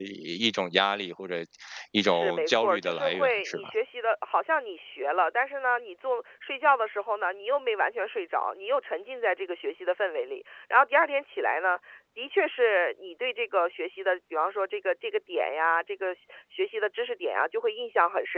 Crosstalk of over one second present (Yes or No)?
Yes